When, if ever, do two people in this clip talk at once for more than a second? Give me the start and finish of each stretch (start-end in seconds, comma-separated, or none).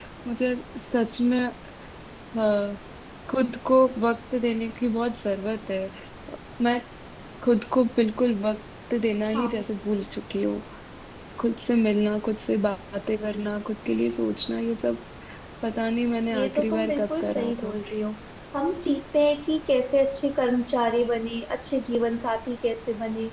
16.3-17.7